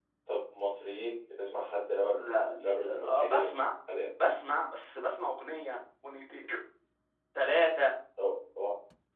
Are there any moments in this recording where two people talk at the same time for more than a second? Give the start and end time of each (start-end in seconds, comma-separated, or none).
2.1-3.5